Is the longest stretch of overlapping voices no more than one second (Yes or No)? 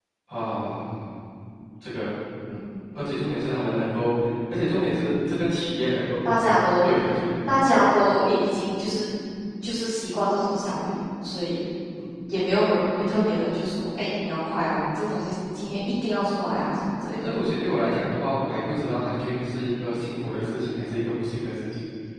Yes